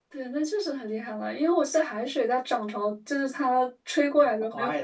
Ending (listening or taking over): taking over